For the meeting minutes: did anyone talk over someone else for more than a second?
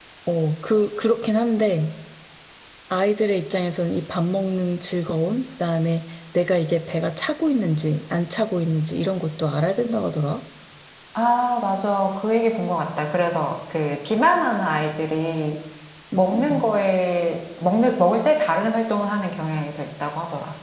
No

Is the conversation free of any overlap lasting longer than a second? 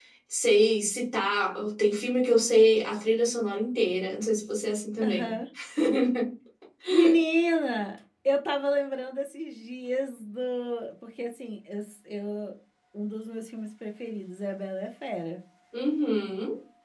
Yes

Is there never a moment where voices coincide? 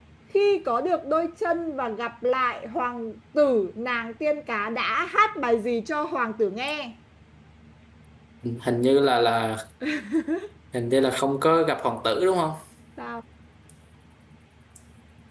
Yes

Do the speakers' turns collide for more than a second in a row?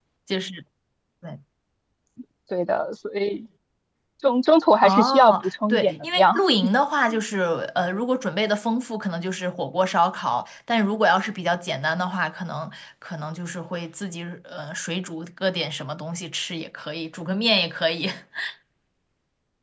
Yes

